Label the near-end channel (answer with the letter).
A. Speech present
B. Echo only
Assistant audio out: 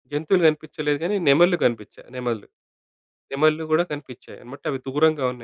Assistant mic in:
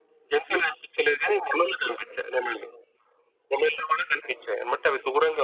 B